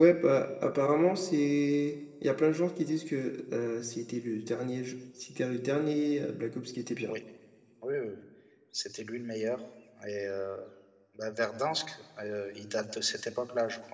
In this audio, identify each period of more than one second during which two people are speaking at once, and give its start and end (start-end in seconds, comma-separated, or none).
none